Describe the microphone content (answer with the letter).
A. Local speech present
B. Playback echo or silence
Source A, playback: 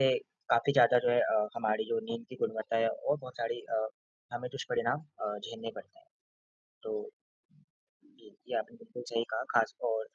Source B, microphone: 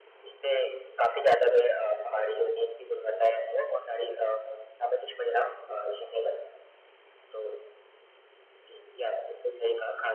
B